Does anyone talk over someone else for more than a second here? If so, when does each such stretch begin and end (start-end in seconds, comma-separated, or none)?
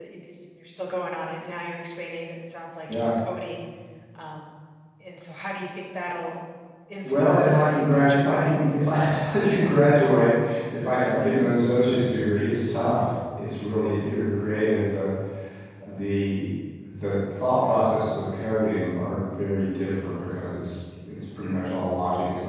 7.0-8.4